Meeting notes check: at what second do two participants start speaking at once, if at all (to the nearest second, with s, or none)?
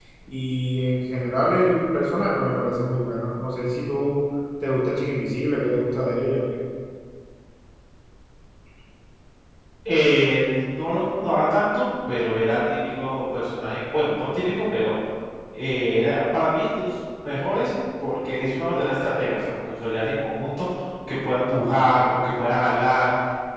none